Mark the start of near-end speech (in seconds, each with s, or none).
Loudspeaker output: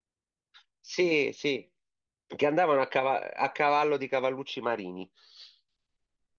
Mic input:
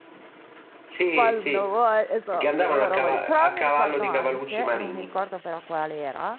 1.1 s